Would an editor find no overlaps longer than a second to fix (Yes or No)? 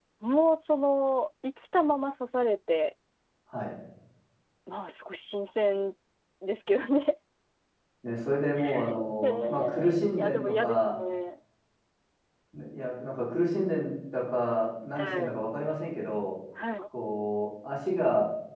No